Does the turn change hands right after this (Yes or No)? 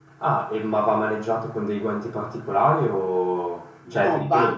Yes